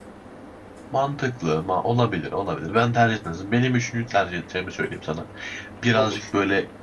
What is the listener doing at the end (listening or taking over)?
listening